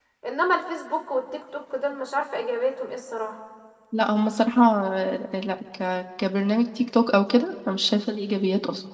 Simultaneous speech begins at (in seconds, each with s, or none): none